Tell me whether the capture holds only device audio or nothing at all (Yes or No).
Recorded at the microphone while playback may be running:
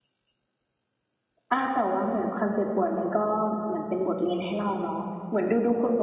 No